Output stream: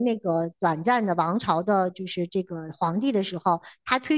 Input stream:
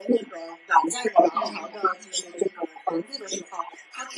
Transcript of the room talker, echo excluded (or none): 嗯